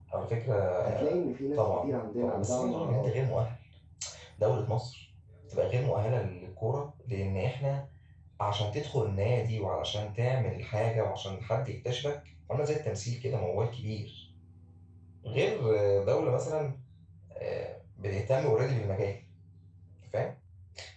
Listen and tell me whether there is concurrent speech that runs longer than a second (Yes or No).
Yes